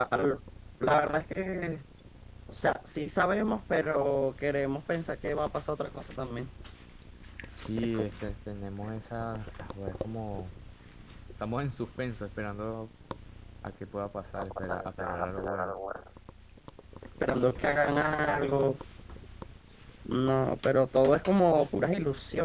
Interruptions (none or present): present